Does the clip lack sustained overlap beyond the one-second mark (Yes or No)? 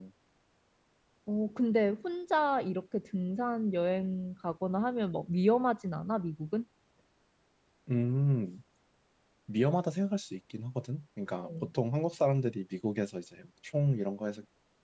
Yes